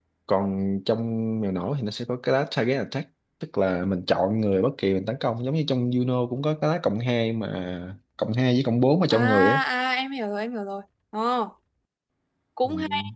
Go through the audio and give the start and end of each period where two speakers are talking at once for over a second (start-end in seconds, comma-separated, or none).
none